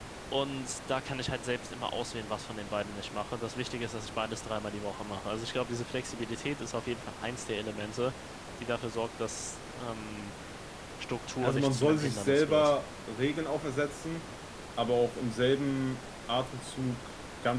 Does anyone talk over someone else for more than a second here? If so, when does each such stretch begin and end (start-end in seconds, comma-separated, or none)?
11.4-12.7